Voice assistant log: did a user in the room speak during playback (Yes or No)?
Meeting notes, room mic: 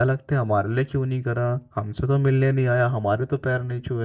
Yes